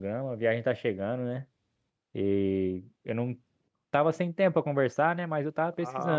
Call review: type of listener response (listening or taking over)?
taking over